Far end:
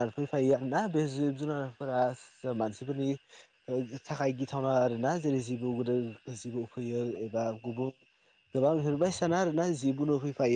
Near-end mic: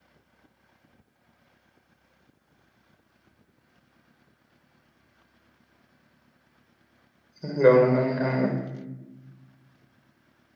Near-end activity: present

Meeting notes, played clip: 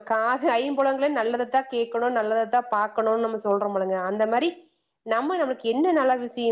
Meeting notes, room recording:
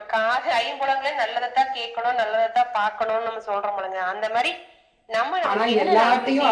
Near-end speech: present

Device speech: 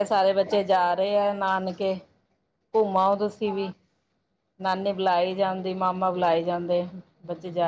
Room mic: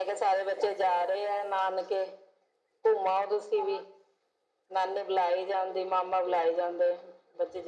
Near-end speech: none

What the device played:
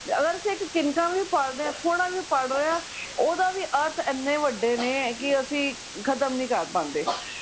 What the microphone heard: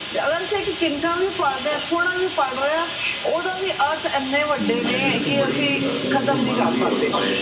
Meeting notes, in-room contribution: present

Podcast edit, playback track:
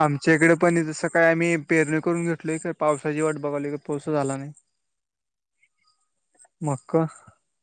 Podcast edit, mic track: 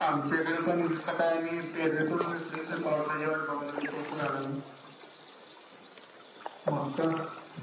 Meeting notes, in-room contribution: none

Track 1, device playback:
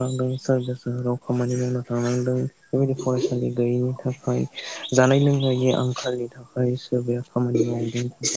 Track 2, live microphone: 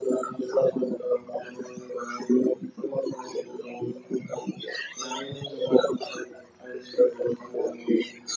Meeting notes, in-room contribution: none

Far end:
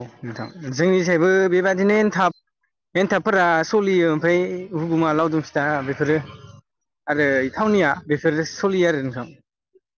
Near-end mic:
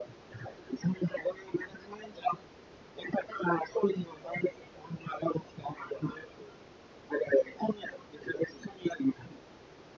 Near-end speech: none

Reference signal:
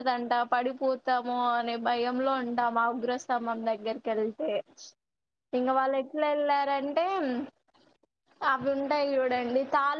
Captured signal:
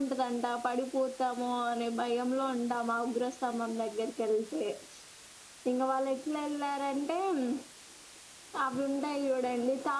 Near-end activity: none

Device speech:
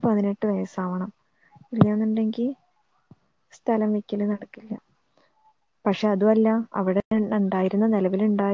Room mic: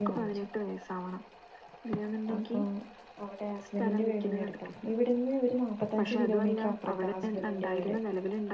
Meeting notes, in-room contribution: present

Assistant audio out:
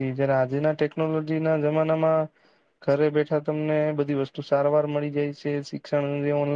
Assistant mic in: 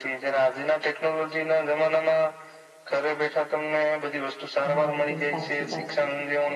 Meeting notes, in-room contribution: present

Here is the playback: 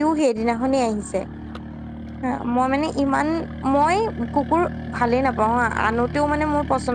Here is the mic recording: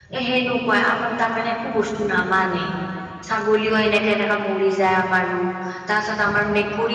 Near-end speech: present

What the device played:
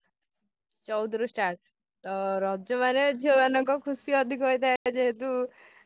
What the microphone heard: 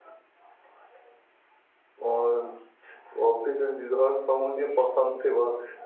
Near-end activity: present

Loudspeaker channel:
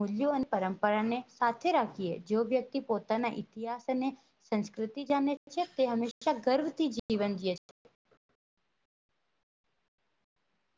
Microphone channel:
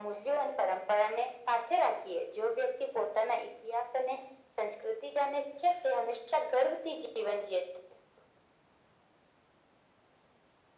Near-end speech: none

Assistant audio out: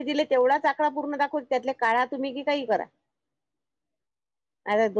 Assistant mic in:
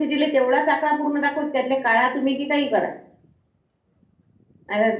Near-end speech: none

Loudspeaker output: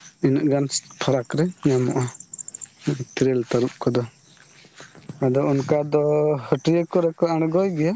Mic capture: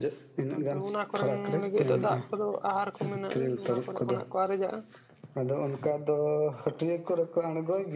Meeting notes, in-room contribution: present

